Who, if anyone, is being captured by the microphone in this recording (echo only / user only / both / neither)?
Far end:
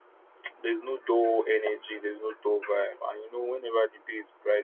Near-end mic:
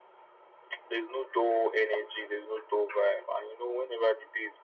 echo only